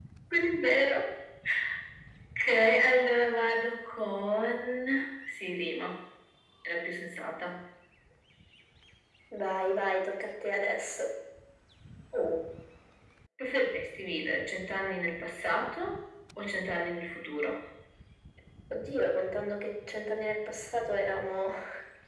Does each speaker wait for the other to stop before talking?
Yes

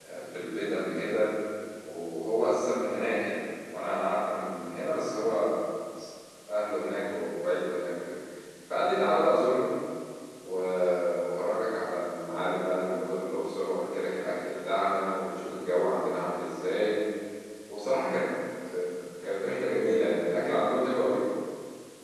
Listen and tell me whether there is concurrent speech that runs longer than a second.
No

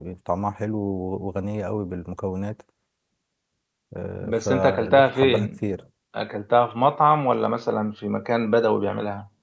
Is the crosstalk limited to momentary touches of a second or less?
No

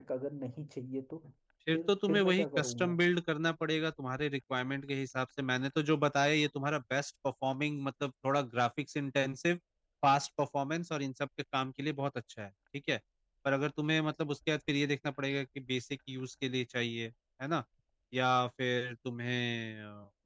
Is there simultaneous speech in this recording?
Yes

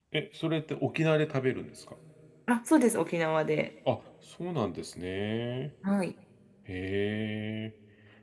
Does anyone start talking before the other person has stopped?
No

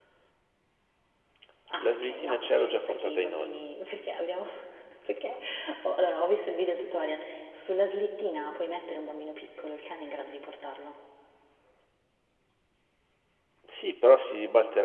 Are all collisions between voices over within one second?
No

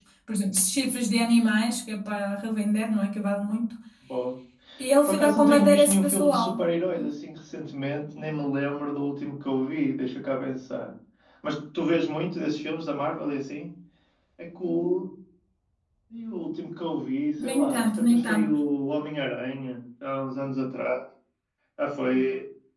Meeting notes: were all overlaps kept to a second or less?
No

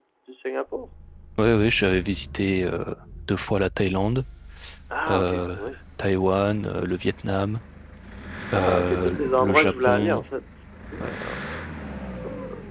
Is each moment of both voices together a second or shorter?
No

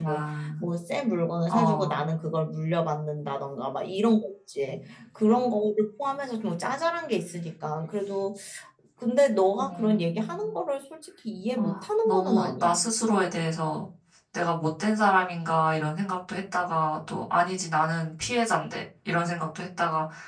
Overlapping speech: Yes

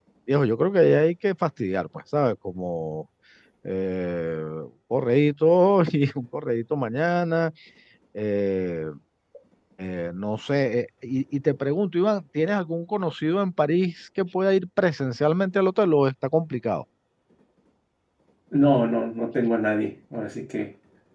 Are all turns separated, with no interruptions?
Yes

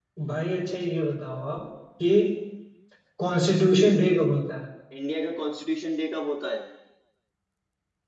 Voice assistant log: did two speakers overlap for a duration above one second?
No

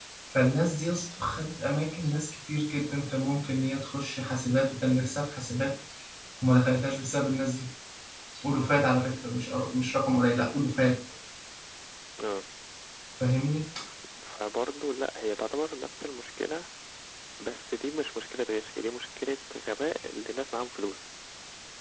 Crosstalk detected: No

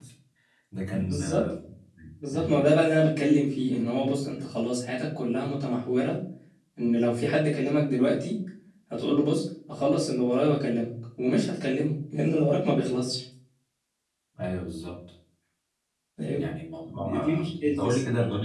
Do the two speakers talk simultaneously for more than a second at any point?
Yes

